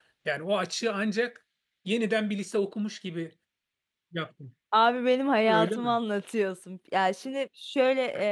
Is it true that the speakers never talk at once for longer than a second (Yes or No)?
Yes